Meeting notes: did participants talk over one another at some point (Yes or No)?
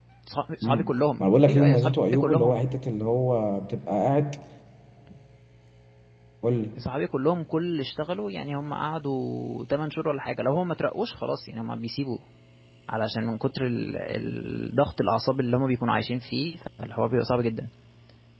Yes